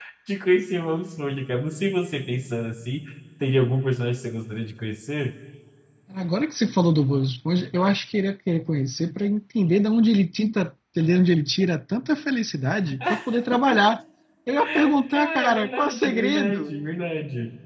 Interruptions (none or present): present